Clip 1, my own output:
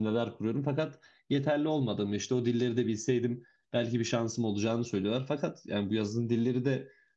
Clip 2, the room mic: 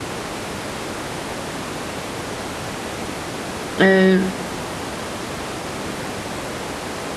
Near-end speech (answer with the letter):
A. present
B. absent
A